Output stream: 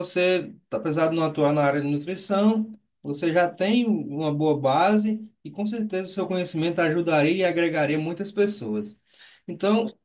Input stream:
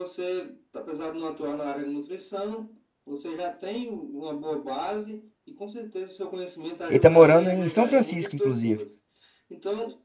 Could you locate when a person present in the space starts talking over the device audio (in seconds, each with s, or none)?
6.9 s